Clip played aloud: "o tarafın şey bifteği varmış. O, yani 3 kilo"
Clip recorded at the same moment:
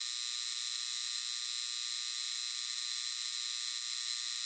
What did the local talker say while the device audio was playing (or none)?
none